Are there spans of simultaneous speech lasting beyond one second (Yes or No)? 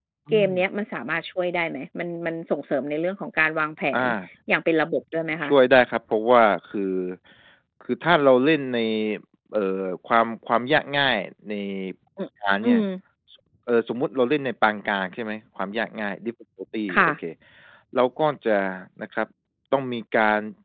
No